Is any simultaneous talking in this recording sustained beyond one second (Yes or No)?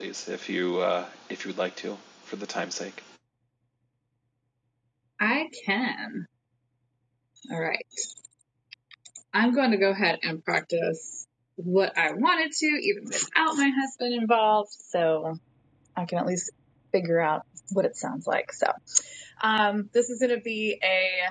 No